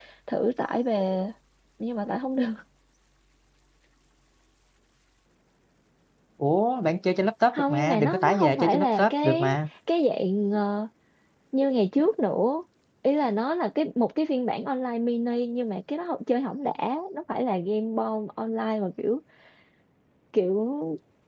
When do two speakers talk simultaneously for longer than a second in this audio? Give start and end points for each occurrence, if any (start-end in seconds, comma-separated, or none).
7.5-9.6